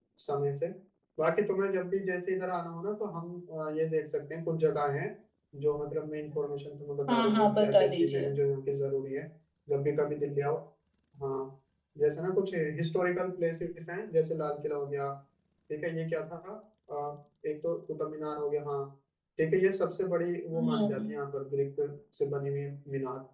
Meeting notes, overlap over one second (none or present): present